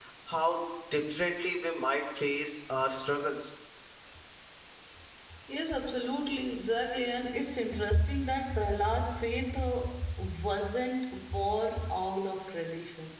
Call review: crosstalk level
none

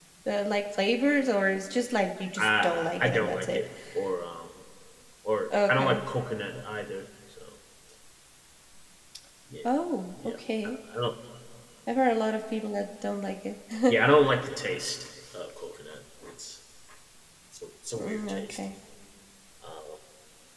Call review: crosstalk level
present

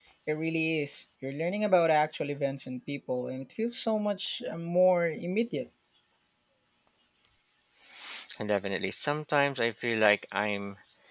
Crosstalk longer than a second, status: none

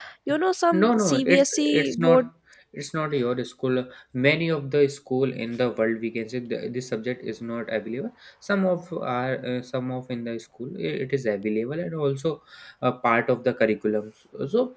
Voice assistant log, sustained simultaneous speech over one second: present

